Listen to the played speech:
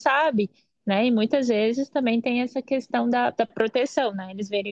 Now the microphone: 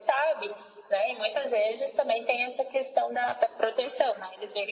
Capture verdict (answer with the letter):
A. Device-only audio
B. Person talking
A